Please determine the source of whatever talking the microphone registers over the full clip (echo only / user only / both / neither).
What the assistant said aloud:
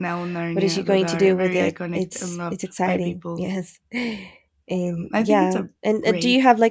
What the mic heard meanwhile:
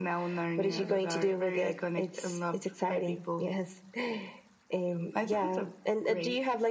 both